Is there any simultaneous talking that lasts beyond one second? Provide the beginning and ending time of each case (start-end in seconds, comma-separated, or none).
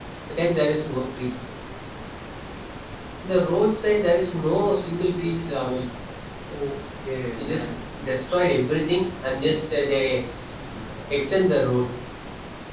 none